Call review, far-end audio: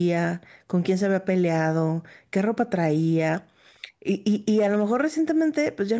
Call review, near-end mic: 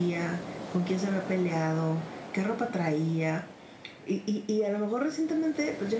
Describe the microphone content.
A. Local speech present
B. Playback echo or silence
B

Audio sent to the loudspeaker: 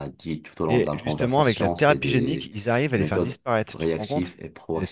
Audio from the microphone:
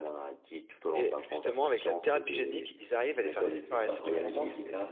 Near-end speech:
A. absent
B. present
B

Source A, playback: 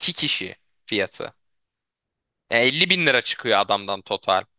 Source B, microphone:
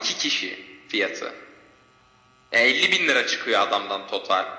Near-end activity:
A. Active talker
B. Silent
B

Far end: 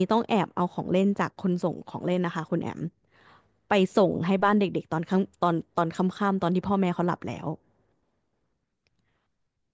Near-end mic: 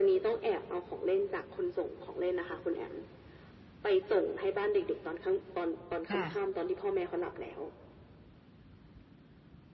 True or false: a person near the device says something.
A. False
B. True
B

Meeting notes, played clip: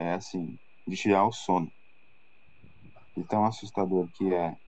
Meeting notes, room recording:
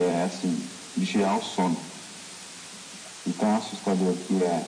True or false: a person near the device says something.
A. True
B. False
B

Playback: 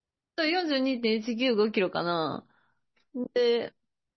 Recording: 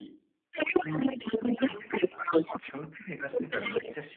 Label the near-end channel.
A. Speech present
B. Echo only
A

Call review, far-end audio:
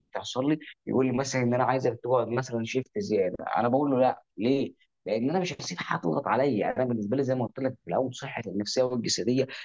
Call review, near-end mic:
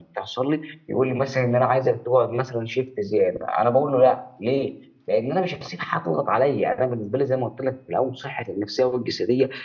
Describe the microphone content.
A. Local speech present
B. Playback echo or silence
A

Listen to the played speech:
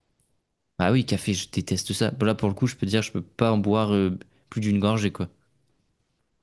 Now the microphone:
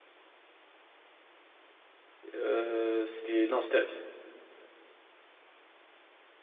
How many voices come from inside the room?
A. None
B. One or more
B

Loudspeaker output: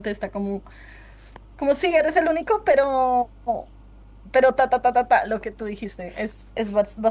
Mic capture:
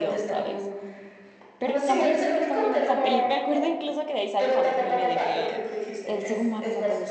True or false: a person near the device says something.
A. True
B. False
A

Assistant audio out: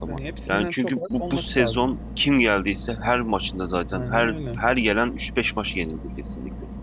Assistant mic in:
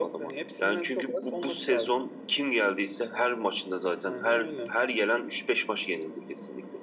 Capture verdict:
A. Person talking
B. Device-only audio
B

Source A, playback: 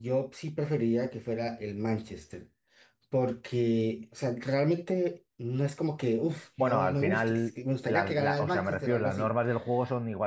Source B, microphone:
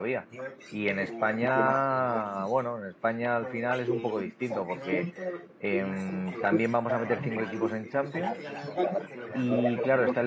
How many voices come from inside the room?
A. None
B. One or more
B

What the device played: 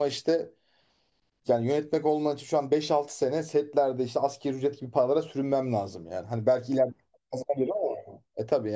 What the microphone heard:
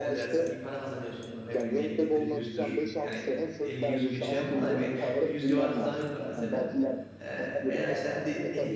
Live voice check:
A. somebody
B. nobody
A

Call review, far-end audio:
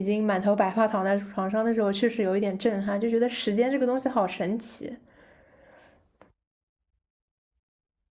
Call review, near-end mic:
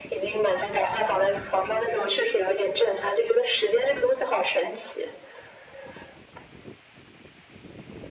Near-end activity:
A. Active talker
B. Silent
B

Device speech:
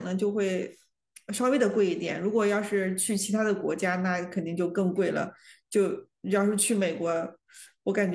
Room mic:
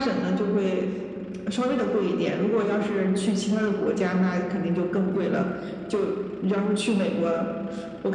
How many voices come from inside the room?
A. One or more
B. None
B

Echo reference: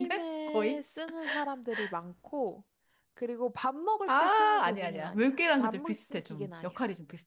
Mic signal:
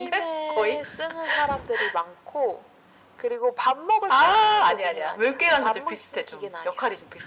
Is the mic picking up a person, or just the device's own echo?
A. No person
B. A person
A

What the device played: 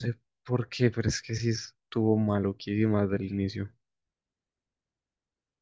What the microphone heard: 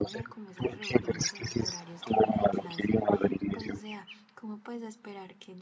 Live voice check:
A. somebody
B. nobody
A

